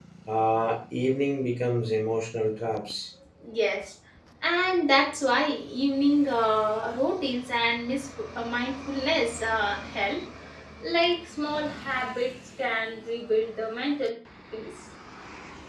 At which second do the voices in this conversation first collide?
none

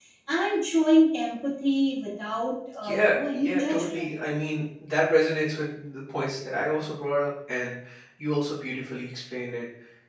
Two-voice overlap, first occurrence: 2.8 s

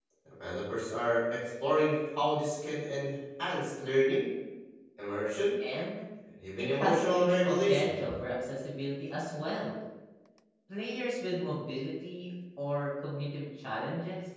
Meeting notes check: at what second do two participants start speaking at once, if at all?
6.6 s

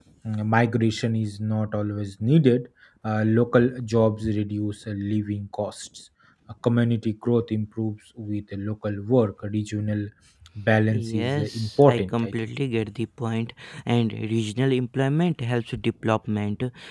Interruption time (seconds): 10.9 s

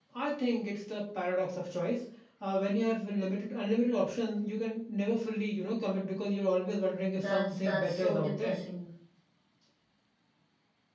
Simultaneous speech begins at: 7.2 s

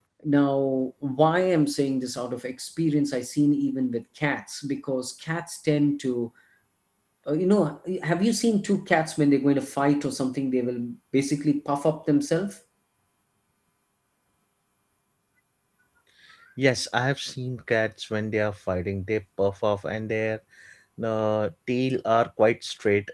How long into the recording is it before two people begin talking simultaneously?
none

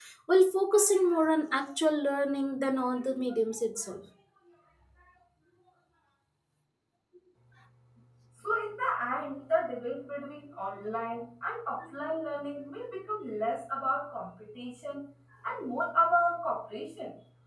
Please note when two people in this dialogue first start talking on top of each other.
none

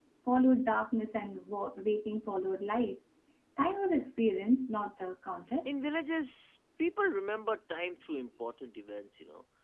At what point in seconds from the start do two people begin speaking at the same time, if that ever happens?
none

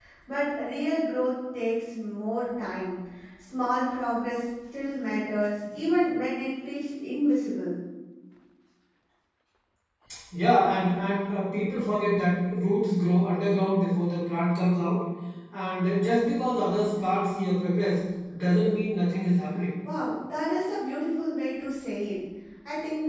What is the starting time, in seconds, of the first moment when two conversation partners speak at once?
none

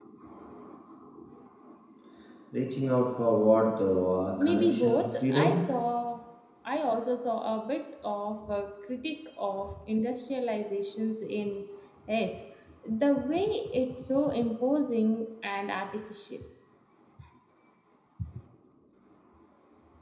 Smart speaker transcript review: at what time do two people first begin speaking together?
4.4 s

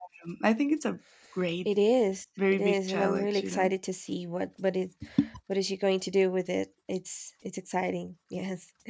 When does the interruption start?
2.5 s

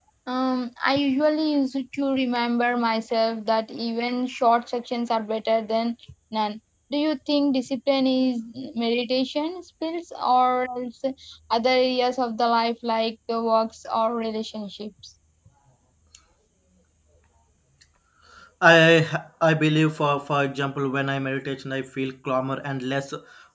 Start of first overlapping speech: none

